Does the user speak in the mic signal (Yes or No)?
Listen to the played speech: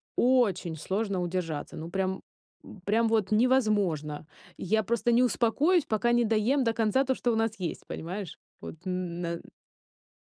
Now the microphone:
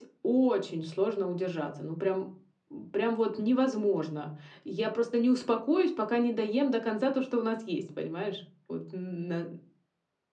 No